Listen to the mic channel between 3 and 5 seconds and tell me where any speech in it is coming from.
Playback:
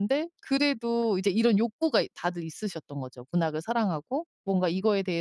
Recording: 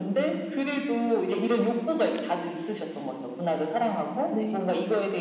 both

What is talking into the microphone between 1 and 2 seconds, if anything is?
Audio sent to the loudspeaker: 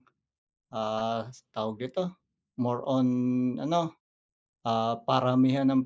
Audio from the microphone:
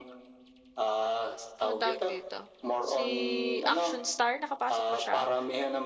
both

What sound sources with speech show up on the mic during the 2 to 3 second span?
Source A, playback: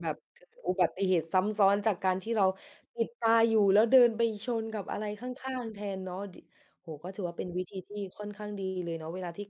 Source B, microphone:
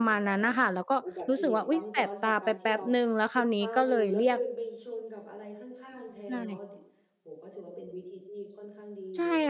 both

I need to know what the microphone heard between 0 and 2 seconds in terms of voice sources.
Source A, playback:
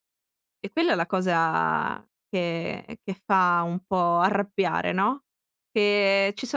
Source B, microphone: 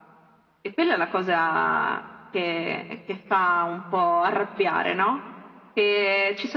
echo only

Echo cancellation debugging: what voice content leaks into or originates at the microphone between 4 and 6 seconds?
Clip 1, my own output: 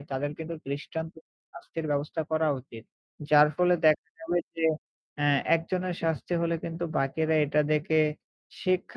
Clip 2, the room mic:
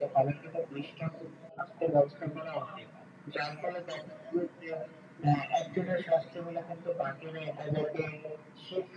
echo only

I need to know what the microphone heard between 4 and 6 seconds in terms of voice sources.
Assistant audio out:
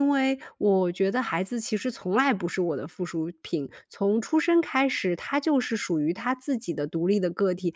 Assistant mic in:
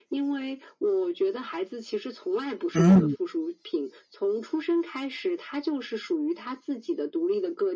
echo only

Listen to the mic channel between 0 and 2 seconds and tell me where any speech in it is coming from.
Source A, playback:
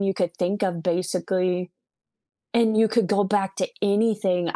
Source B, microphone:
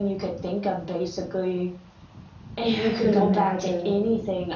echo only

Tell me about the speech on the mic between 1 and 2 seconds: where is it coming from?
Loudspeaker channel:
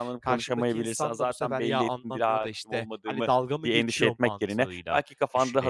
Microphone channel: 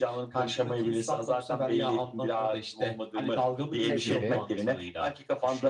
echo only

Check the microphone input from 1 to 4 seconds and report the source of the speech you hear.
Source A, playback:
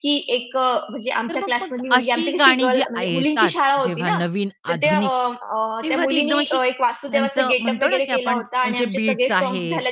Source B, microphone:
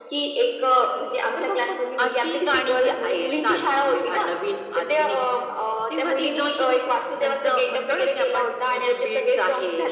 echo only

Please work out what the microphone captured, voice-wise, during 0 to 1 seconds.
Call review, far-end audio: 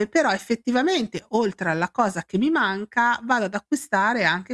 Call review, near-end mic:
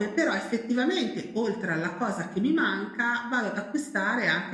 echo only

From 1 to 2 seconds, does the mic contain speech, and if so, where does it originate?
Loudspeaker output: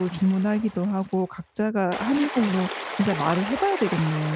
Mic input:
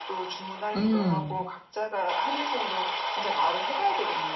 both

